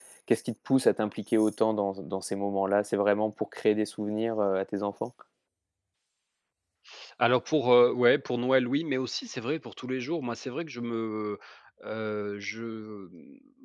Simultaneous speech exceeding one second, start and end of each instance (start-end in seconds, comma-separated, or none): none